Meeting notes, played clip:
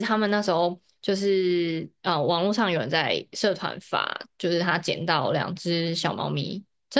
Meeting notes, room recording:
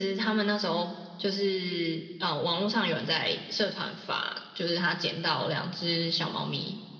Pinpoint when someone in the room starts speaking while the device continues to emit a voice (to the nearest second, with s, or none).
none